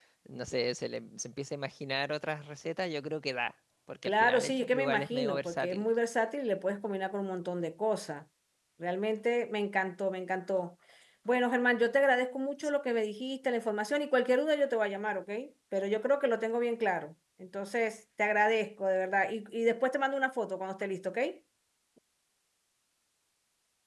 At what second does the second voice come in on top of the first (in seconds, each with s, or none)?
4.0 s